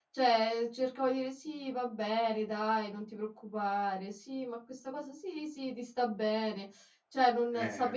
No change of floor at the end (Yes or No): No